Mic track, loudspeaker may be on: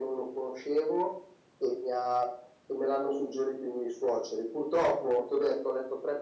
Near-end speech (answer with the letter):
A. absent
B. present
A